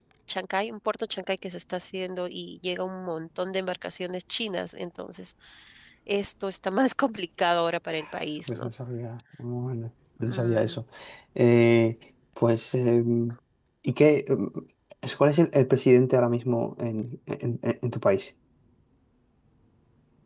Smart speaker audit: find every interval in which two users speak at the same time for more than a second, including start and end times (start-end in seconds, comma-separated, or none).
none